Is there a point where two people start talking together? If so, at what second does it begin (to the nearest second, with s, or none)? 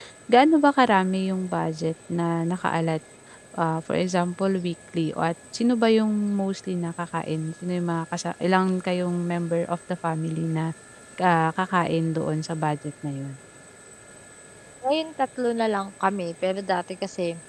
none